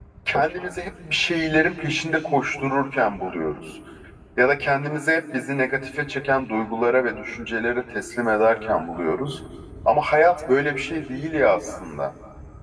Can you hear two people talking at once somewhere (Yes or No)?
No